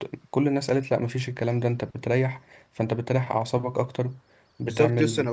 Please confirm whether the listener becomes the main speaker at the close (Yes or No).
Yes